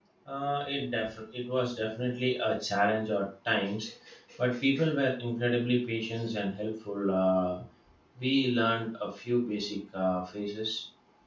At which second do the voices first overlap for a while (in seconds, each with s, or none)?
none